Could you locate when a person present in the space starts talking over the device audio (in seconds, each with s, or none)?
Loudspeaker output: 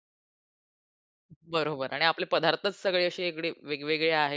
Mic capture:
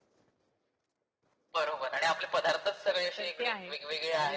3.2 s